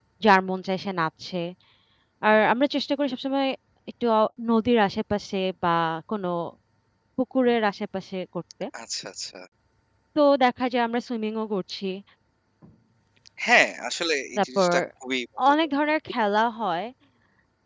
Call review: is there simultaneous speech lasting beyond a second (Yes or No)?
No